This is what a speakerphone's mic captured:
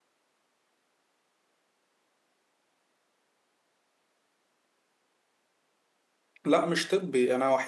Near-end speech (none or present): present